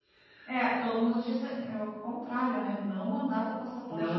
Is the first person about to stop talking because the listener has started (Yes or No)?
Yes